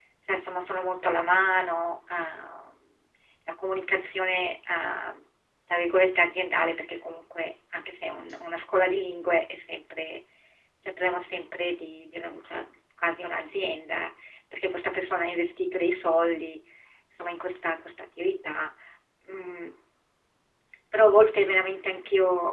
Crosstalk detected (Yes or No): No